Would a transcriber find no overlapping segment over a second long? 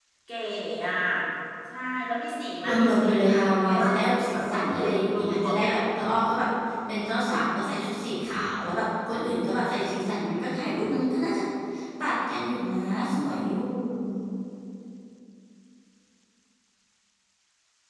No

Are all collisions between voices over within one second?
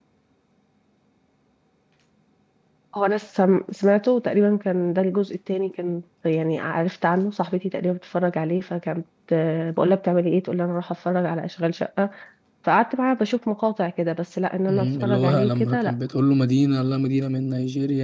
No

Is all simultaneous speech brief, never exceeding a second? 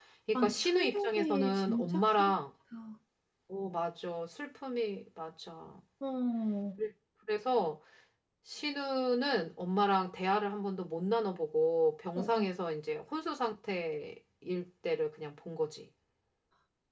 No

